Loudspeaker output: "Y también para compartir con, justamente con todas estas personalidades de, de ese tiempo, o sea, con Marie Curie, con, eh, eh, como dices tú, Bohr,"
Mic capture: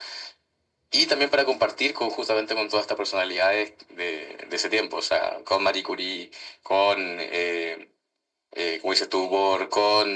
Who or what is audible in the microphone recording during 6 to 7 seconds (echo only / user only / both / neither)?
echo only